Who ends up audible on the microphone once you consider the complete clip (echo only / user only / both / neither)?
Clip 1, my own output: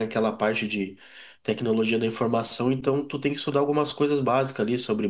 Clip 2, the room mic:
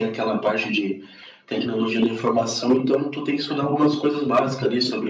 echo only